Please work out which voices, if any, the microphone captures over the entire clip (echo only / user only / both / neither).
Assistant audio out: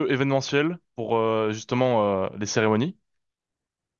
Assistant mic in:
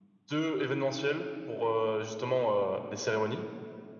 echo only